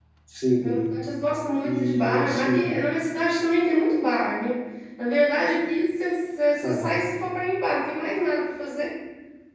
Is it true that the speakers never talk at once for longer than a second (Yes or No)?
No